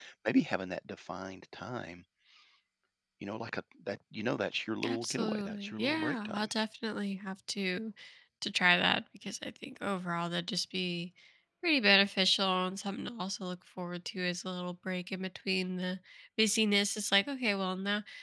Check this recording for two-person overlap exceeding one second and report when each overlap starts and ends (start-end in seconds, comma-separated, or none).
4.8-6.5